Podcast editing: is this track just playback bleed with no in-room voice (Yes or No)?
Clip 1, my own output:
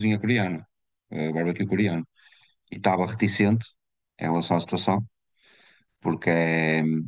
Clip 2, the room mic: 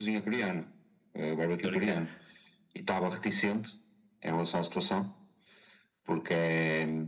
No